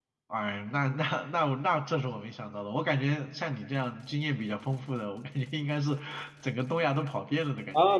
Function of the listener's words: taking over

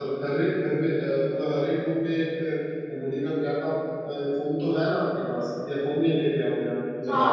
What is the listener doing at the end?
taking over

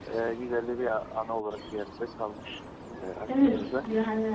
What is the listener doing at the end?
taking over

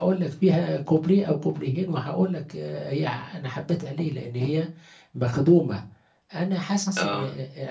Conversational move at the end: listening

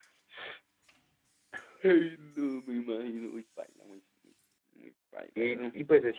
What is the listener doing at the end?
taking over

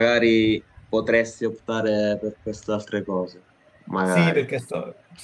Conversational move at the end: taking over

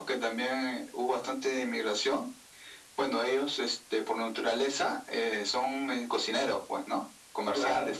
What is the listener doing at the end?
listening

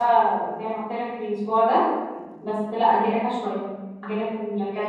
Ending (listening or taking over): taking over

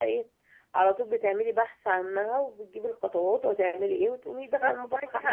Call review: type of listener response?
taking over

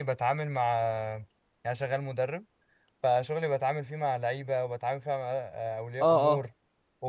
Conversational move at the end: listening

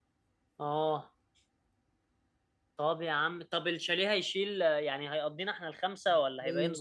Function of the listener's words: taking over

